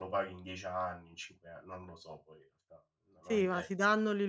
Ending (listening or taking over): taking over